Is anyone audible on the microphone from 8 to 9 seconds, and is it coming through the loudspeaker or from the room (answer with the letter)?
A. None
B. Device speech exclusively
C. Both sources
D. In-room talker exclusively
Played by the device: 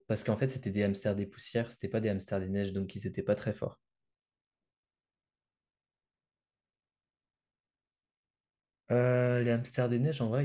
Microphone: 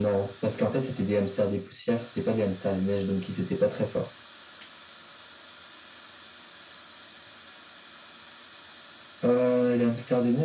A